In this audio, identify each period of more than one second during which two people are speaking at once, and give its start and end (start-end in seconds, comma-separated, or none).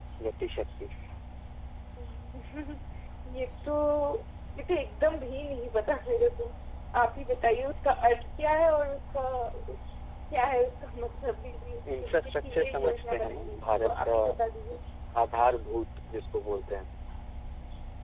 12.0-14.2